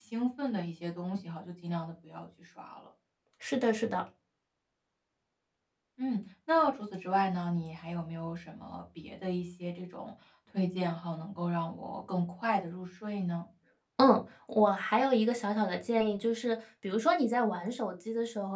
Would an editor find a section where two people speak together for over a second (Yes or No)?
No